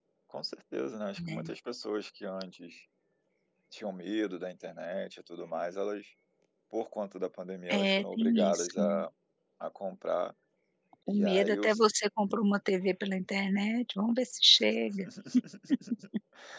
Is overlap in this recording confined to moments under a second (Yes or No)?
No